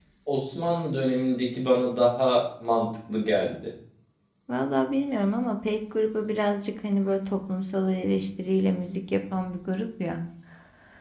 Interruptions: none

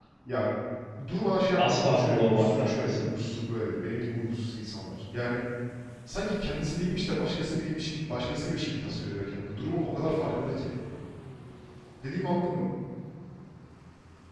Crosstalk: present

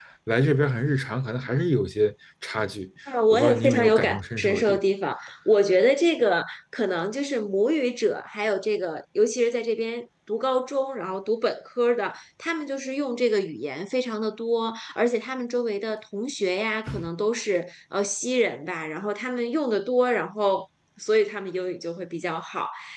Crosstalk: present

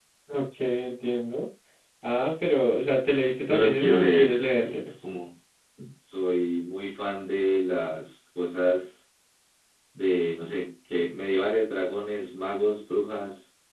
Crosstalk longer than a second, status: present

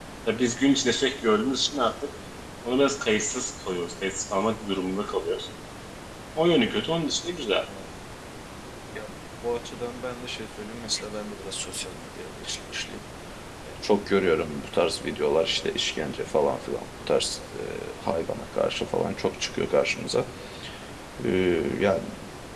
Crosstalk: none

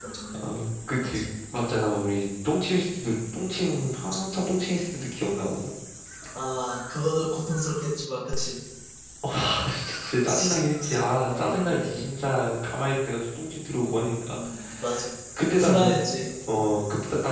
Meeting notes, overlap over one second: present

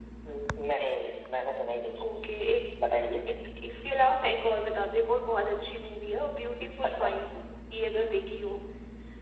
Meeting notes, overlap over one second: none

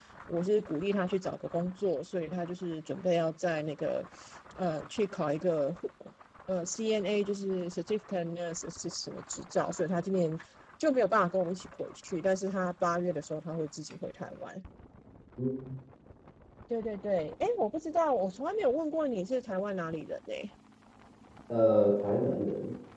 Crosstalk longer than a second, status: none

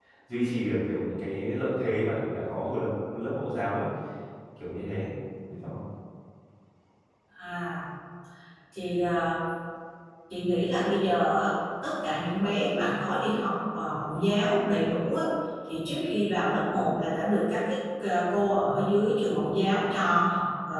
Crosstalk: none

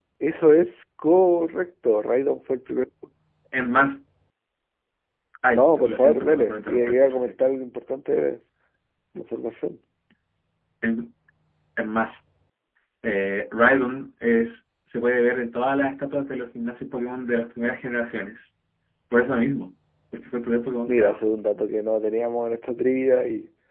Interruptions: present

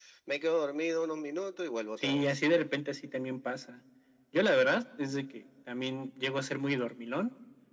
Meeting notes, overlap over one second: none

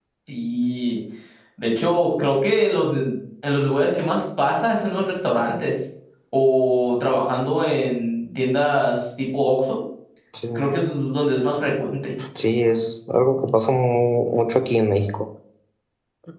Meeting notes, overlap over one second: none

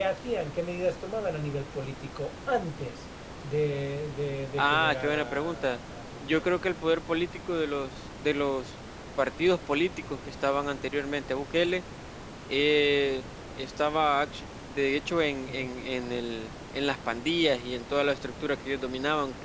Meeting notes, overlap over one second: present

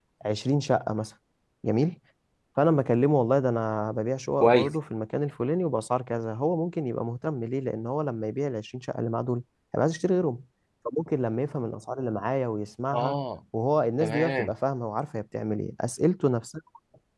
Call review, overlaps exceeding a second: none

